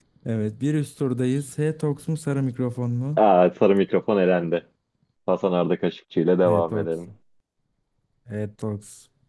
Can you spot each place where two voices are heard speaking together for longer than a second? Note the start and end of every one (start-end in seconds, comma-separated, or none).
none